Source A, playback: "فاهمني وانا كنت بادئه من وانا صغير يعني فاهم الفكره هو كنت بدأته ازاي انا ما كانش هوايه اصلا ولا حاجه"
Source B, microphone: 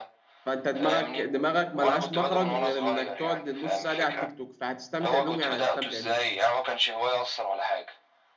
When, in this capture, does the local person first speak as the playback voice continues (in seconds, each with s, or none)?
0.5 s